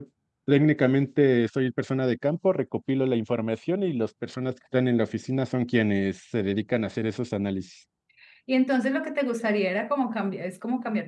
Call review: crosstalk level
none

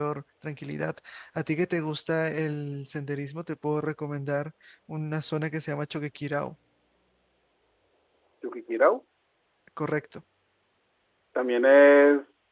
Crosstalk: none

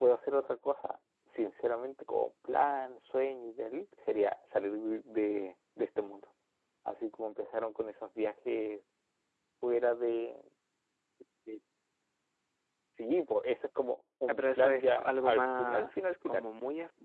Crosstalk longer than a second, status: present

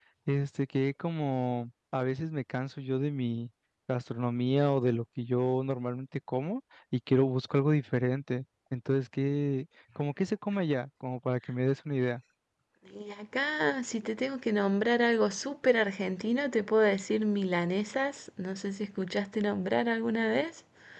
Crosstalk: none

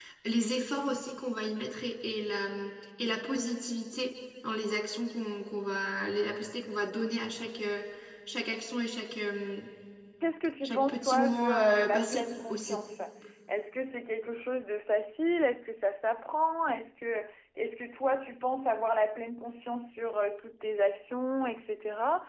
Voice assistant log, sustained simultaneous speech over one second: present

